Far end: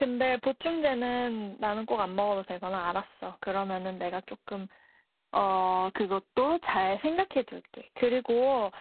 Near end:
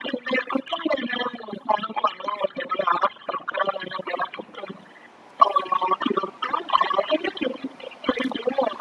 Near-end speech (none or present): none